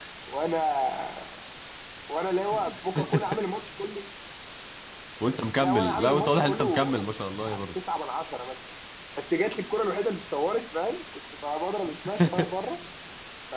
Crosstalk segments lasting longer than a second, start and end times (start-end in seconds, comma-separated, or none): 5.6-6.9